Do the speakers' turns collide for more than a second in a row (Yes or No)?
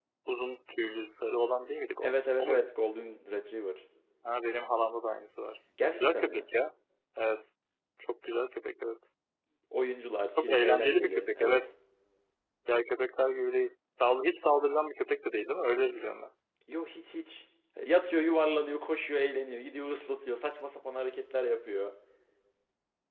Yes